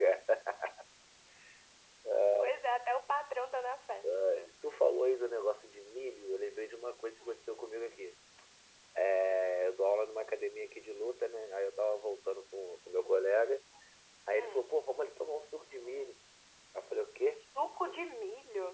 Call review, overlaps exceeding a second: none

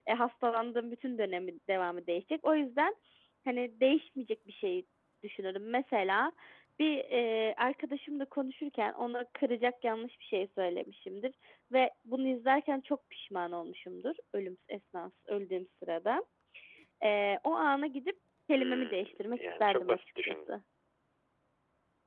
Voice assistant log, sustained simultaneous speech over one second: present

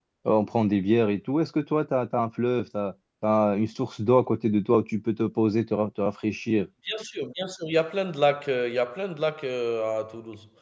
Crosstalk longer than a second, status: none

